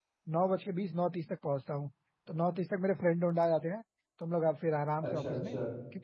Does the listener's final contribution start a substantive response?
No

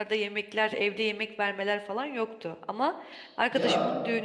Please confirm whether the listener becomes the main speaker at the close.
No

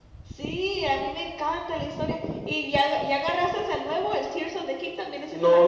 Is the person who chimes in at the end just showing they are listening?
No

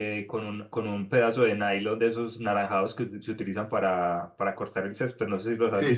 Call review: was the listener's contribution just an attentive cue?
No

